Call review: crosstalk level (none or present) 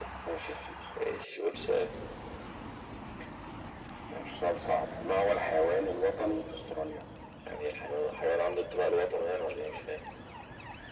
none